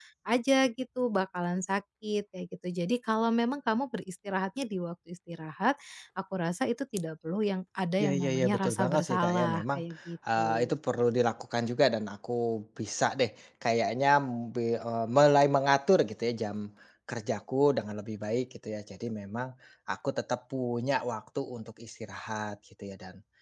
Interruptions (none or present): present